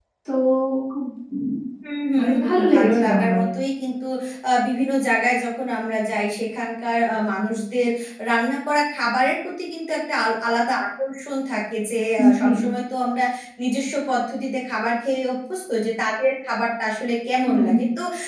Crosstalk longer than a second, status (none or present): present